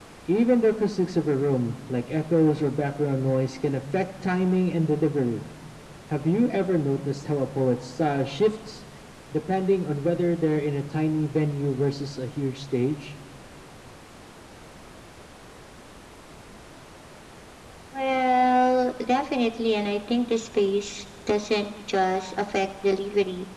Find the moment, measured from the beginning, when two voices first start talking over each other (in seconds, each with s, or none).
none